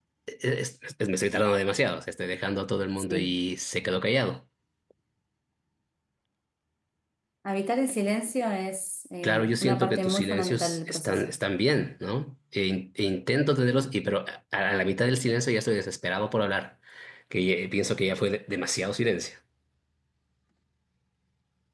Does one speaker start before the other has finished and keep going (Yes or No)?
Yes